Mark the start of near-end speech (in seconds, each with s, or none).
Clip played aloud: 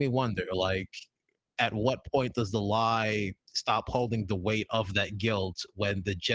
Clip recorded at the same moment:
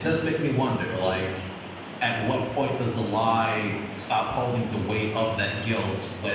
none